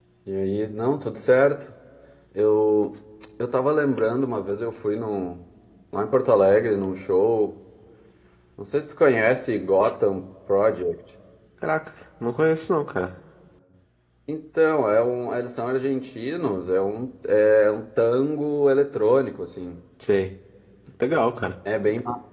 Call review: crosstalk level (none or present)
none